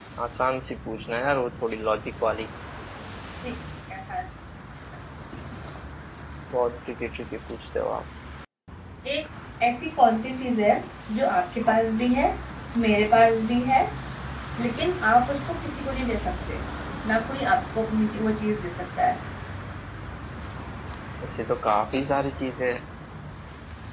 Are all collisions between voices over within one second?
Yes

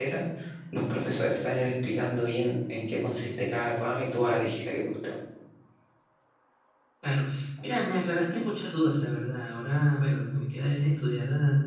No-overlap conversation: Yes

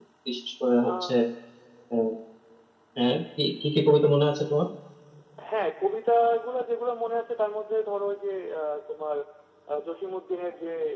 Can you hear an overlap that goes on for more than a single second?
No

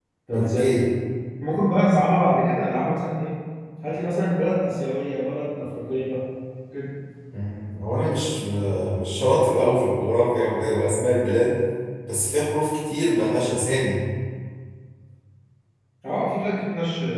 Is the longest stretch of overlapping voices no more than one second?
Yes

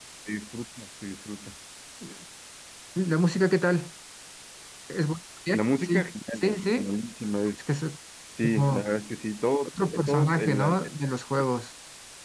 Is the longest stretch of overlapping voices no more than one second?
No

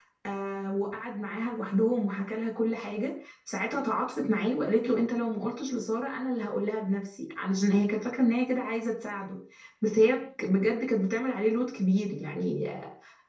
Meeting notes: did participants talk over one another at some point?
No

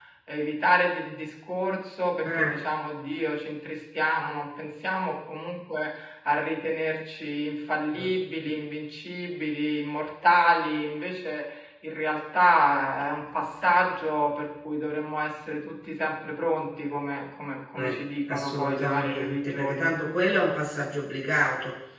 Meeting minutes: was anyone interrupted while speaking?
Yes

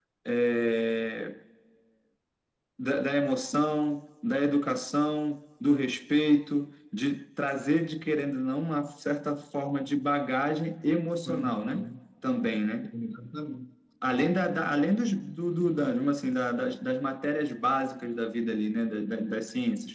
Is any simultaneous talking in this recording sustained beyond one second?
No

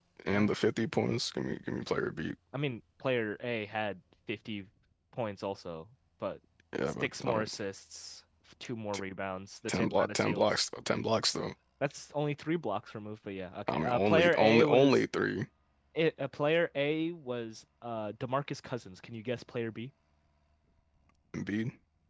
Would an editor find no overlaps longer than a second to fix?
No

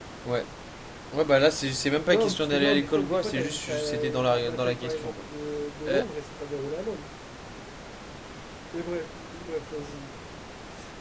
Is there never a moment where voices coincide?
No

